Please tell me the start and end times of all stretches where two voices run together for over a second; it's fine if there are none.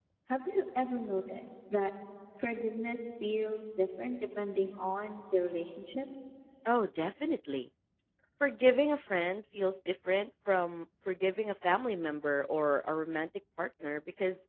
none

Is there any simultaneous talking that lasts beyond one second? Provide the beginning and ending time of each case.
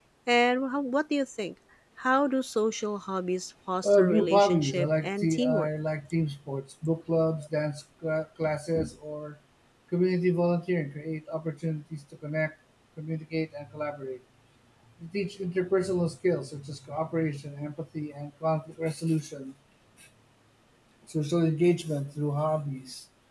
3.8-5.7

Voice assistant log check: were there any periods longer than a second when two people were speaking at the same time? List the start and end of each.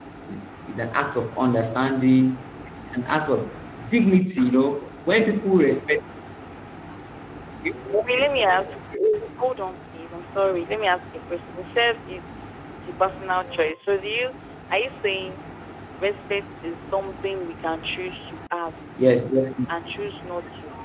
none

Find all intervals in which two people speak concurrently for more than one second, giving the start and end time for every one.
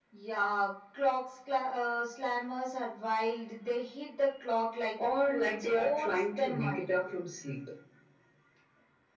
5.4-6.9

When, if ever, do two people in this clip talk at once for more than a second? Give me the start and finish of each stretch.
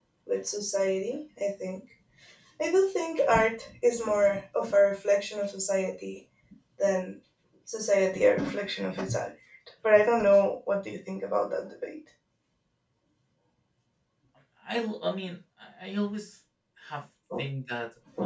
none

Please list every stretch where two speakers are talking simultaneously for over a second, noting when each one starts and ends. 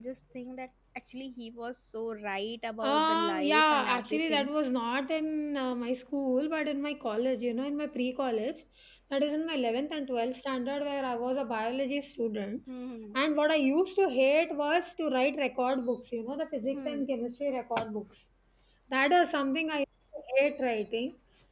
2.8-4.5

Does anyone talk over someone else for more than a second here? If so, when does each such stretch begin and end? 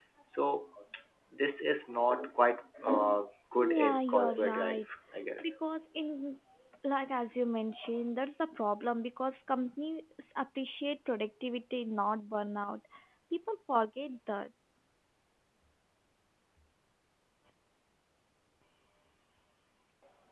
3.6-4.8

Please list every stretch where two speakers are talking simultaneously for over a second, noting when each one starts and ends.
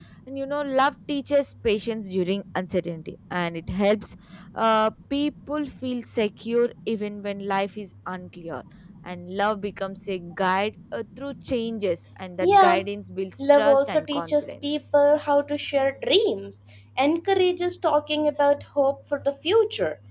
13.4-14.8

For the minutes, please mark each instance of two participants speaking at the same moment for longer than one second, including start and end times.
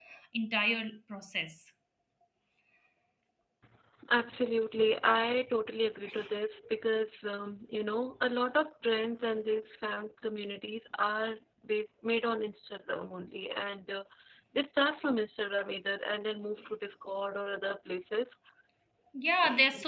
none

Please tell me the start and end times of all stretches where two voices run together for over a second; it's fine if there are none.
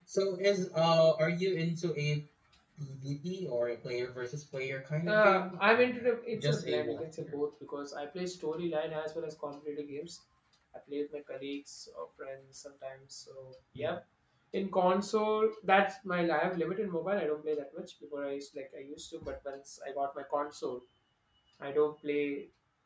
5.1-7.4

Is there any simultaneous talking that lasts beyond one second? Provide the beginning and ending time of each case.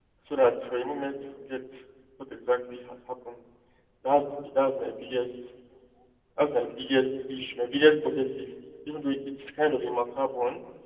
none

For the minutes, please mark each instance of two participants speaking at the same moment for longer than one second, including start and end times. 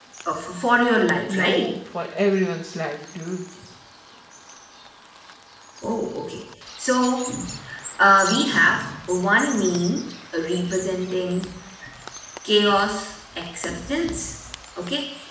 none

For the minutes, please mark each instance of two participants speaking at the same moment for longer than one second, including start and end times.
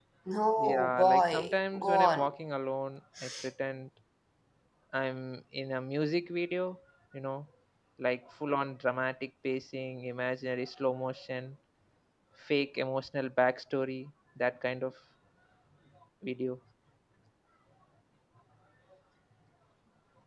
0.6-2.3

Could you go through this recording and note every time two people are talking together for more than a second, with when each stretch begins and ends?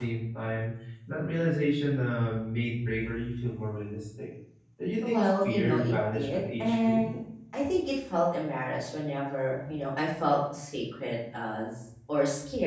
5.0-7.0

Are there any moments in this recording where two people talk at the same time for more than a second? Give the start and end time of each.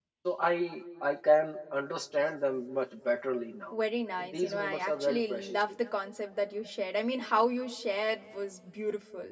4.2-5.6

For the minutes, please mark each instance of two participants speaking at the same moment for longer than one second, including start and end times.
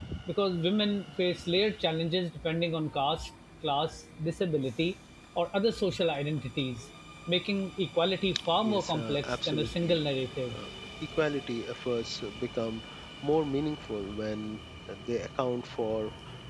8.6-10.0

